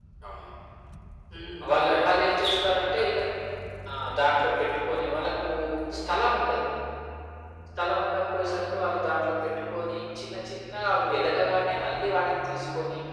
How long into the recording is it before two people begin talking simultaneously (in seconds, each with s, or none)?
1.6 s